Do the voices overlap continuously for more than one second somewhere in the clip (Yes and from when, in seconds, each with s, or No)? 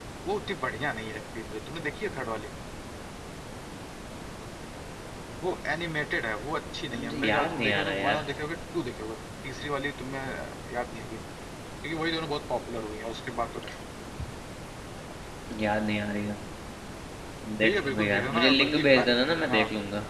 Yes, from 7.0 s